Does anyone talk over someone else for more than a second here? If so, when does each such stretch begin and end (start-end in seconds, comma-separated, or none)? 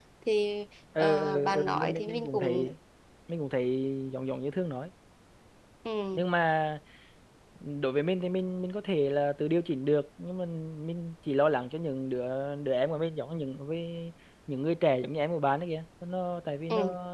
1.0-2.6